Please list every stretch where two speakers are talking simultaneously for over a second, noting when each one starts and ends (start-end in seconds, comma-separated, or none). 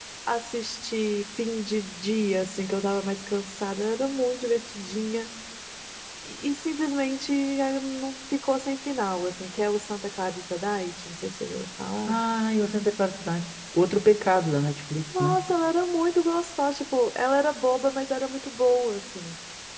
none